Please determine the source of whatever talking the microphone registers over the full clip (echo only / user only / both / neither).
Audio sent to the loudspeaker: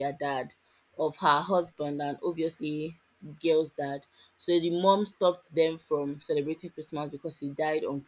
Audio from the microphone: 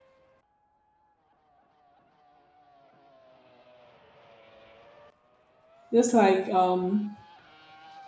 user only